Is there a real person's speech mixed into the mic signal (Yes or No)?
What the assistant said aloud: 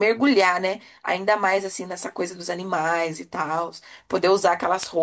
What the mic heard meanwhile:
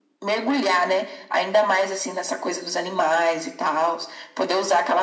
No